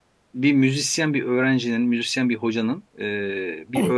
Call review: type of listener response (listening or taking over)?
listening